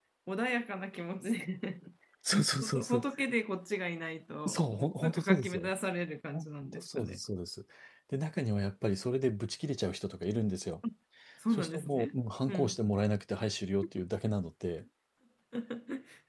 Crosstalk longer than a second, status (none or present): present